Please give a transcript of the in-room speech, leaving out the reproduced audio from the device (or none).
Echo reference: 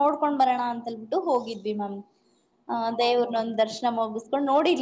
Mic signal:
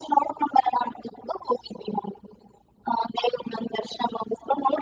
none